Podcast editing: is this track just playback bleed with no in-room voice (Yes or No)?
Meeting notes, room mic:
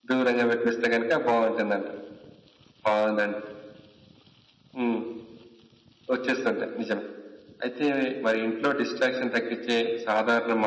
Yes